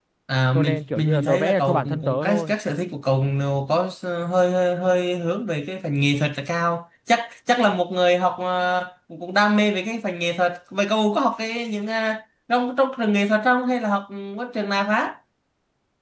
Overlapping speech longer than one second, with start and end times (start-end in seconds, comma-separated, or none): 0.6-2.5